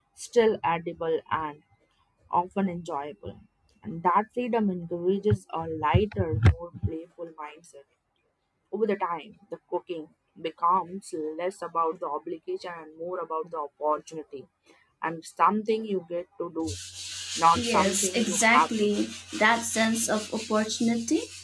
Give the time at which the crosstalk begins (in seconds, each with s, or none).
17.6 s